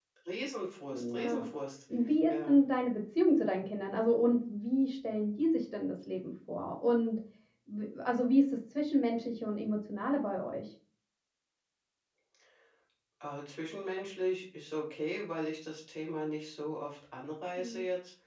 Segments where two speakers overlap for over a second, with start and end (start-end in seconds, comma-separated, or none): none